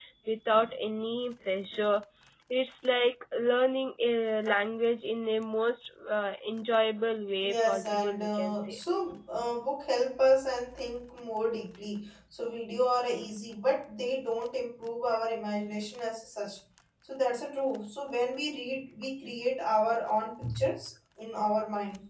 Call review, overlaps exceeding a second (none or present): present